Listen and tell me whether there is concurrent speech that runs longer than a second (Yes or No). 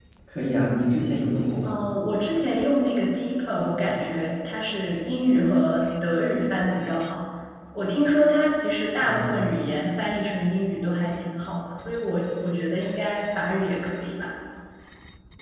No